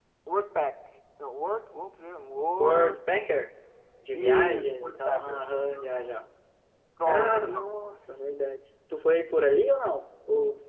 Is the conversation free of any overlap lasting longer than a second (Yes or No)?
No